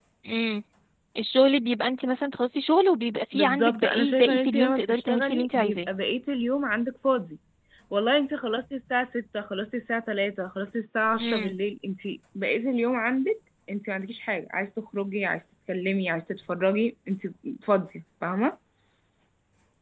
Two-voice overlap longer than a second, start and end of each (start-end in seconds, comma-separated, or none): 3.3-5.9